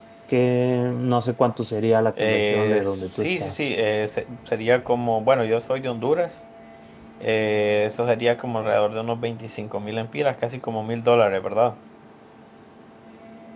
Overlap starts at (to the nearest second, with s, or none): 2 s